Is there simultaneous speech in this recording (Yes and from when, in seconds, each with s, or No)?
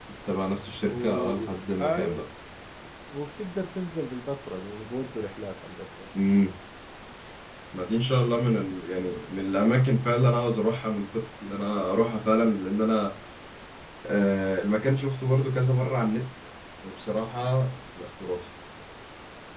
Yes, from 0.9 s